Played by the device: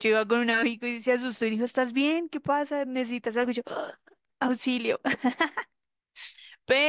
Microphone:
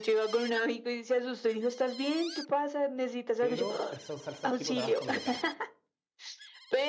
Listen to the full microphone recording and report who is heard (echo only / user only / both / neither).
both